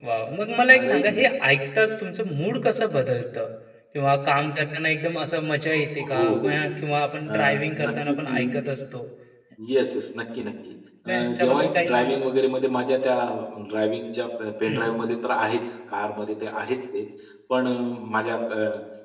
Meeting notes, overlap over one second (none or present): present